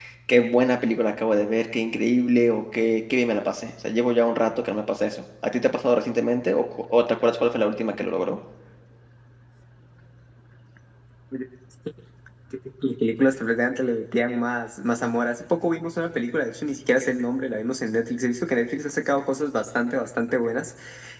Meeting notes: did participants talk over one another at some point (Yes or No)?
No